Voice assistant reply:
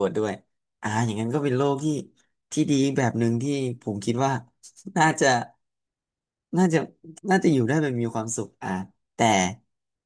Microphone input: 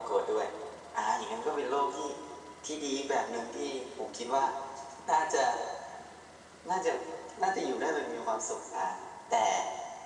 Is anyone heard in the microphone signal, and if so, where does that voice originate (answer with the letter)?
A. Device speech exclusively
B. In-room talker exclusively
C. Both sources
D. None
A